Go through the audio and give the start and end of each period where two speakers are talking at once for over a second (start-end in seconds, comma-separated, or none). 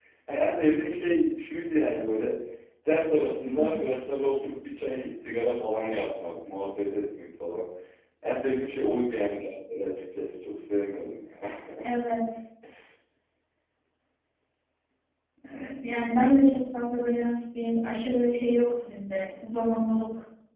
none